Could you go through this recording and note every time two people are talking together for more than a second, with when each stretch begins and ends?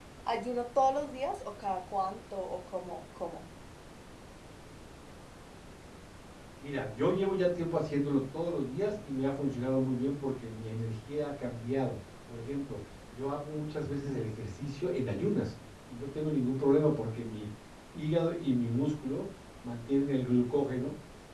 none

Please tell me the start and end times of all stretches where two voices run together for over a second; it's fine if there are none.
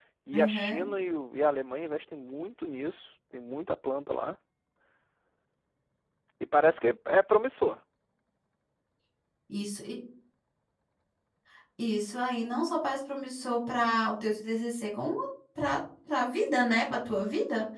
none

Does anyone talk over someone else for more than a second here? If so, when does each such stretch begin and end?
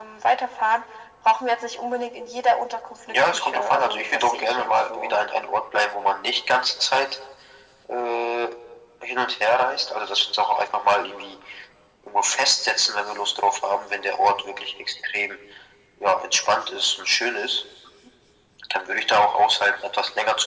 3.1-5.2

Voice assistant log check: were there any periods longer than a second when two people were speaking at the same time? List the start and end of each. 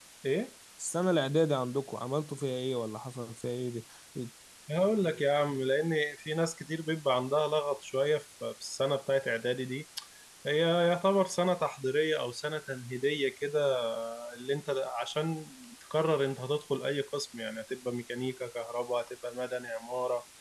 none

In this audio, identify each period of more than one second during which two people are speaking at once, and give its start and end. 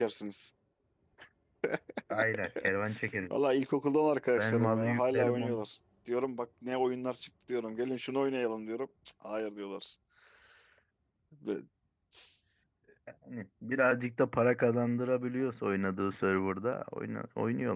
4.4-5.6

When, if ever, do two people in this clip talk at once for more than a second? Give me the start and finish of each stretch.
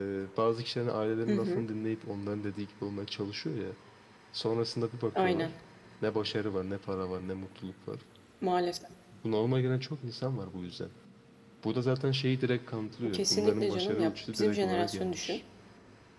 13.1-15.4

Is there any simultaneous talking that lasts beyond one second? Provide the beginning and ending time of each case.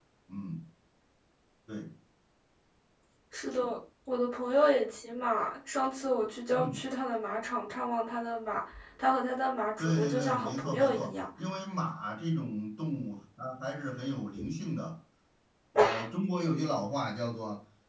9.8-11.2

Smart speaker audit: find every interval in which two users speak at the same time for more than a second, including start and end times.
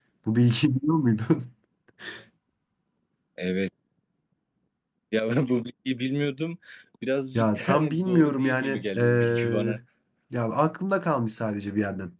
7.4-9.8

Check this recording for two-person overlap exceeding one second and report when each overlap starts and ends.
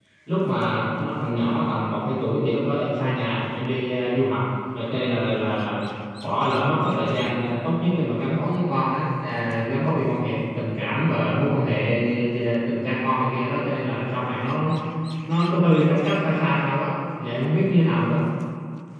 none

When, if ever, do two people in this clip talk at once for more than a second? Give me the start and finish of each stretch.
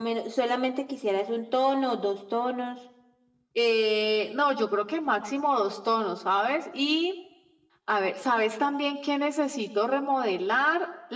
none

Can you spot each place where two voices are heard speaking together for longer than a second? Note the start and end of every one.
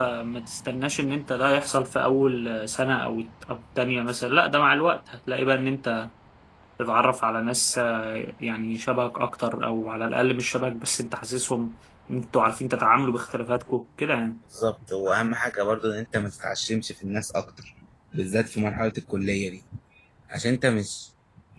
none

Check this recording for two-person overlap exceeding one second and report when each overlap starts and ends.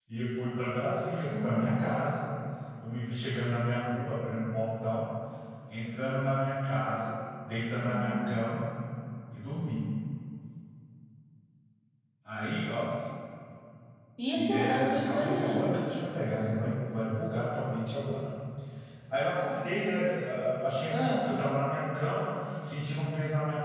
14.3-15.9

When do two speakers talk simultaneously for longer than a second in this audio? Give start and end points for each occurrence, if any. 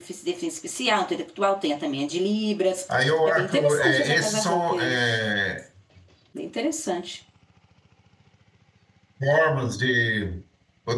3.2-5.0

